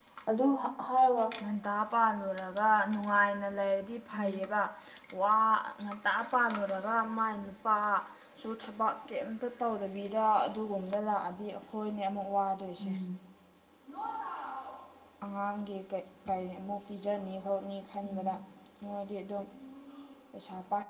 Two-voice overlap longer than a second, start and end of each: none

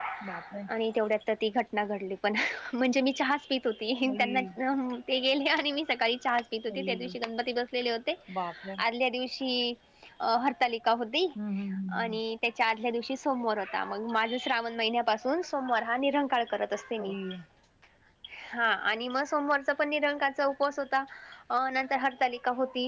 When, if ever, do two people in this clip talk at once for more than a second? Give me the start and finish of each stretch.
none

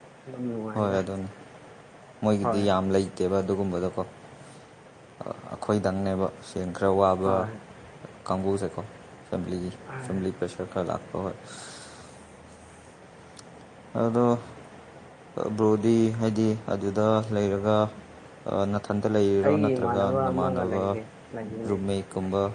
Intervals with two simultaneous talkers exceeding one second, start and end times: 19.4-20.8

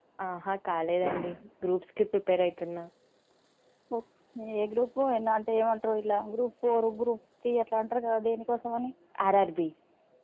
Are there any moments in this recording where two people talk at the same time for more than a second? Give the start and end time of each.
none

